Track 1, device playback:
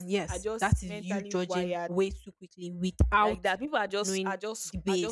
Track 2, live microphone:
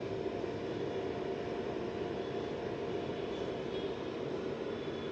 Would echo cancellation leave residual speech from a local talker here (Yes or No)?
No